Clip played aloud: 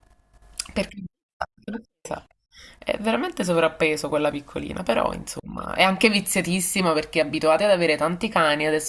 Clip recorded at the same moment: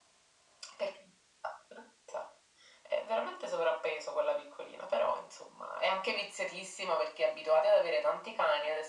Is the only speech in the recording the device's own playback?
Yes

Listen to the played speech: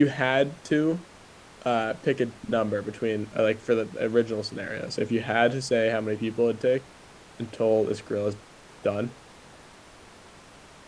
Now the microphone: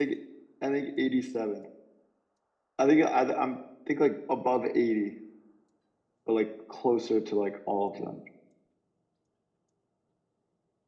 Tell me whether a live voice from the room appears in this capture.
Yes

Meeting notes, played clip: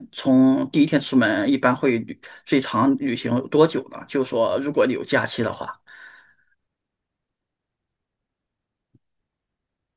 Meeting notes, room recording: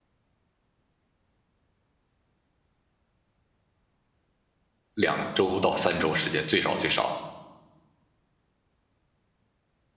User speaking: Yes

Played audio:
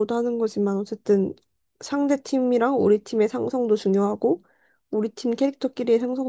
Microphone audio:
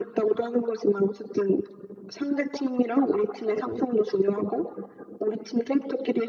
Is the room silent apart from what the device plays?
Yes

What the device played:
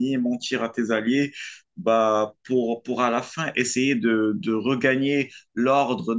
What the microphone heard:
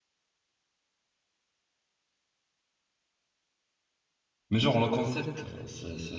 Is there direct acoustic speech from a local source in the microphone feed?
Yes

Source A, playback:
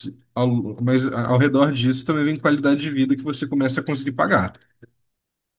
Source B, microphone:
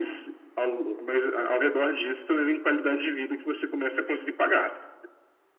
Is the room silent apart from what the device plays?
Yes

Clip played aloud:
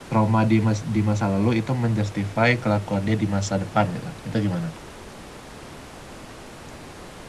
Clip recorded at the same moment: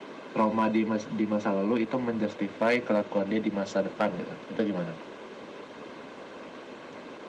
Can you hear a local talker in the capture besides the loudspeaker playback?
No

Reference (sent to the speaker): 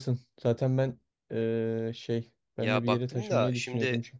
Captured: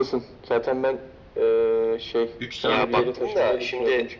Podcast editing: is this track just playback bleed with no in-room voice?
No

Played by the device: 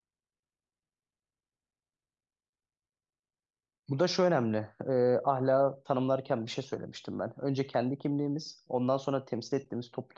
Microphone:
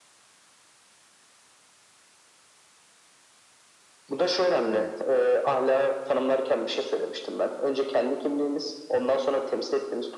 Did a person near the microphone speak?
Yes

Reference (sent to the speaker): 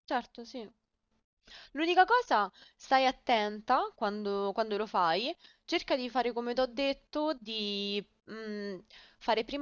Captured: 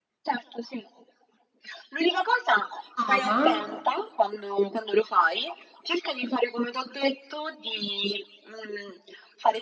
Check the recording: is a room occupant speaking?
Yes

